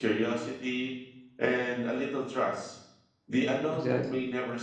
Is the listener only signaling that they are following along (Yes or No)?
Yes